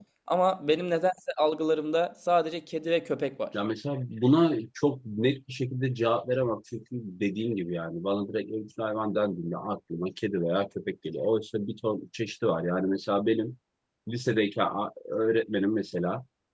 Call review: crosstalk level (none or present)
none